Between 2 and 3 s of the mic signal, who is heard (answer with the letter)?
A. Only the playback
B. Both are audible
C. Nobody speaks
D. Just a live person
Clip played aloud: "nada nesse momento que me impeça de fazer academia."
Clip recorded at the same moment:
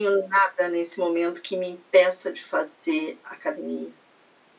A